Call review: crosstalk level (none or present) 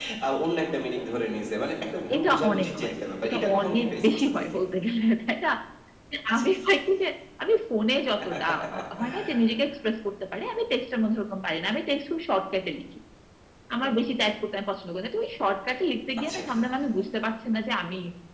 present